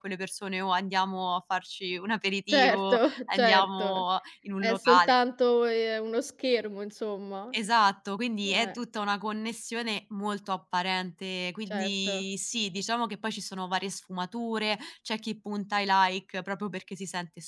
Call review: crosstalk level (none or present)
present